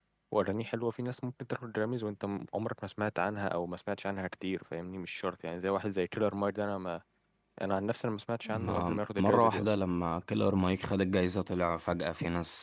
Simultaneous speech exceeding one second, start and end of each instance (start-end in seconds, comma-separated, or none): 8.4-9.7